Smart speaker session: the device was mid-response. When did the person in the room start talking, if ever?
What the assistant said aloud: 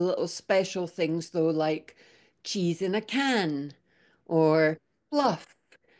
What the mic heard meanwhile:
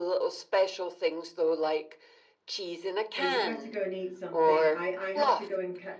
3.1 s

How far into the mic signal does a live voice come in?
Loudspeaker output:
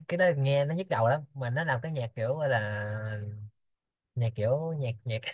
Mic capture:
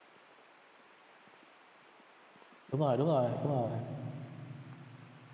2.7 s

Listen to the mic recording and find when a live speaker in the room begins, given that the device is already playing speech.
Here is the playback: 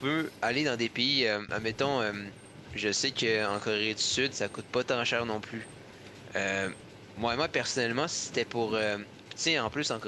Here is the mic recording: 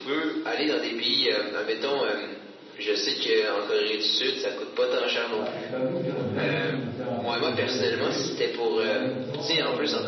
5.3 s

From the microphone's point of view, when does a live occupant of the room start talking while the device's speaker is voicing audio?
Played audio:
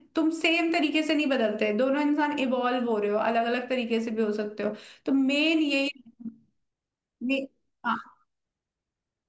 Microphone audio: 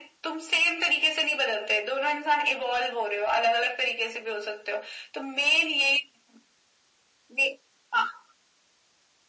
none

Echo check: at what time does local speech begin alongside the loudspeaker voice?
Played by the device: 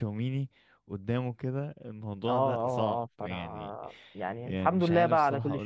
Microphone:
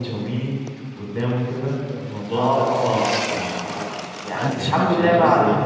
4.3 s

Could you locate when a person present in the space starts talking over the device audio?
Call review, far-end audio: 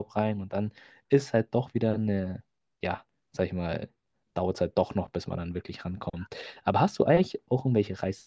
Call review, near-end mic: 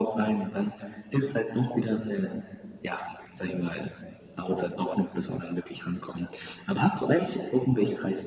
none

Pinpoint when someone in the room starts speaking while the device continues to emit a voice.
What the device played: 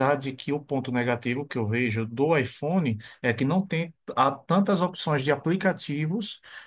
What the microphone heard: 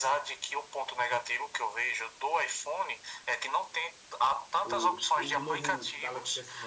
4.6 s

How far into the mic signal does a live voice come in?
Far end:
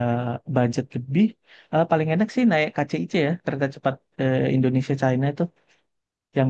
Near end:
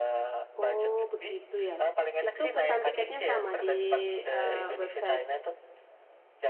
0.6 s

